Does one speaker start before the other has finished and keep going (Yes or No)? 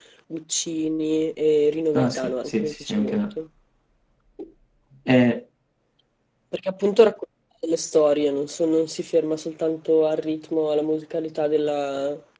Yes